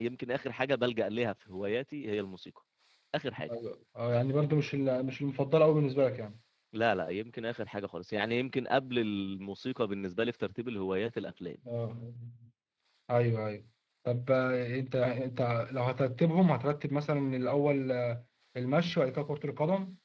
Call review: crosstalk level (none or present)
none